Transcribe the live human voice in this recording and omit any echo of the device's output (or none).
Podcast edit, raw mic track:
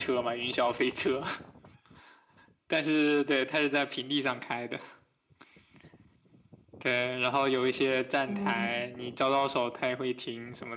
嗯，